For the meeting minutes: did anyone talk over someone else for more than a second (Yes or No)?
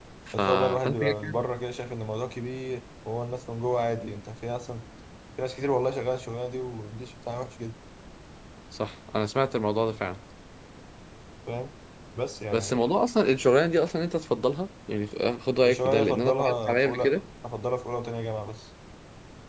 Yes